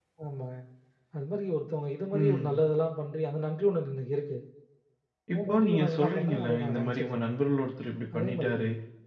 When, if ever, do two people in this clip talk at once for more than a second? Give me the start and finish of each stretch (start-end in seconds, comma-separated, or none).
5.3-7.3